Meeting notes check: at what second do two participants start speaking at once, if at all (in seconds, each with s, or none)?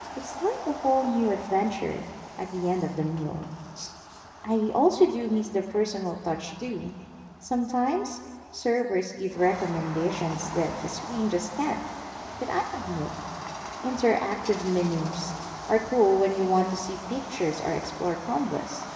none